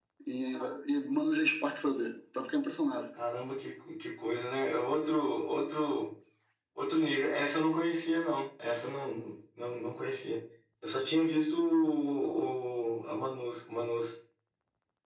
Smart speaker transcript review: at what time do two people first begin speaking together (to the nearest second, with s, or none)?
none